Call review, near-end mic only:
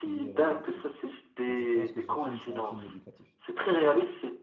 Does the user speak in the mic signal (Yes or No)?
Yes